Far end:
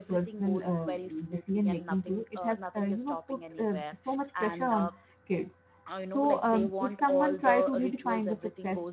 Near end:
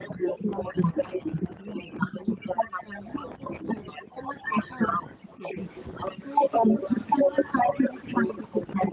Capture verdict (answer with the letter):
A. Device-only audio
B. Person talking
A